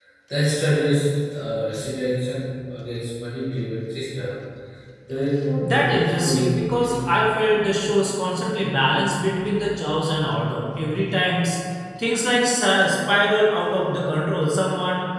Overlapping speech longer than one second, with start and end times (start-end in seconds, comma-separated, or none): 5.6-7.1